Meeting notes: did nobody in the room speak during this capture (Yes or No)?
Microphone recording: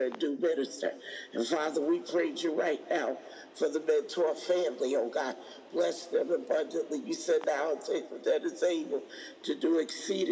Yes